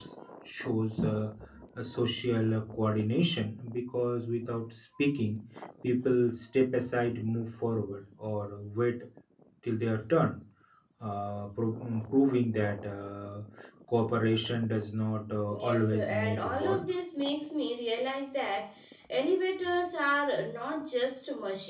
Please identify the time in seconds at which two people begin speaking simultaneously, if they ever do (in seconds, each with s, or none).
15.5 s